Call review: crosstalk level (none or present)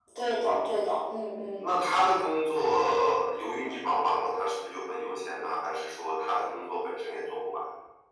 none